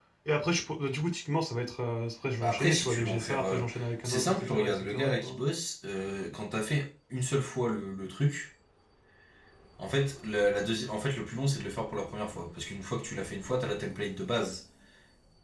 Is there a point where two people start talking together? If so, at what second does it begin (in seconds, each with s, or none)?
2.4 s